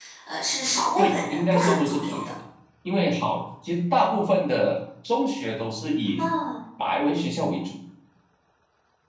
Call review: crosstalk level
present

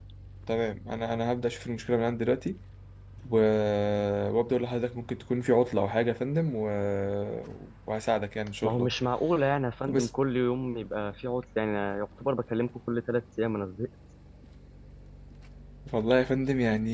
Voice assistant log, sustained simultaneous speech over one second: none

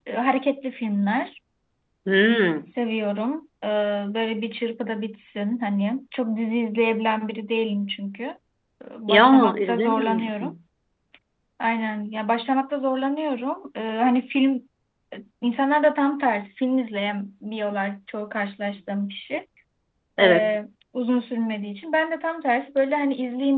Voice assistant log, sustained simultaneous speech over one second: present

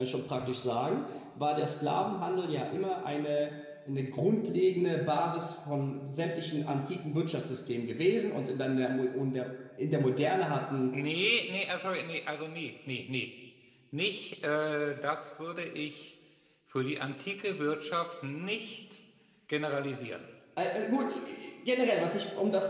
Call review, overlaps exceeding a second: none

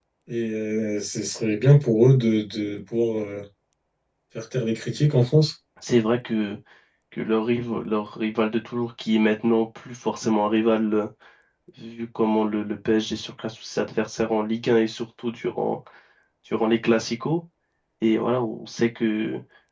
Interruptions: none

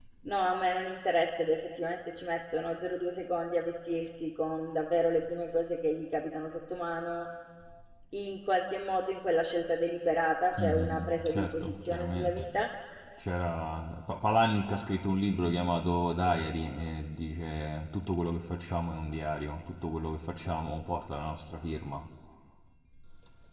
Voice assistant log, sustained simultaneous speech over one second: present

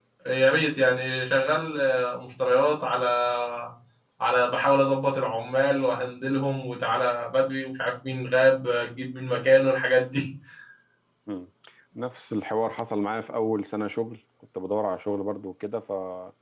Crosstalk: none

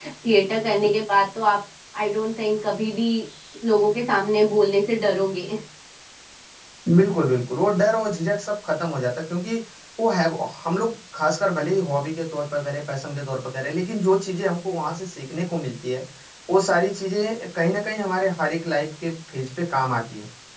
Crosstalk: none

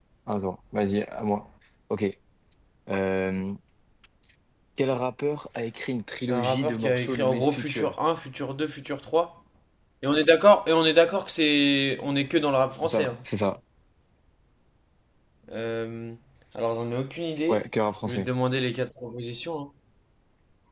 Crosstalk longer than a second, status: present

